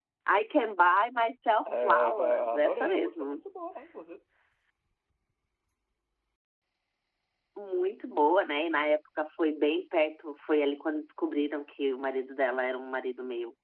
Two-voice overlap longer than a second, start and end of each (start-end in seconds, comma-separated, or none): 1.6-3.4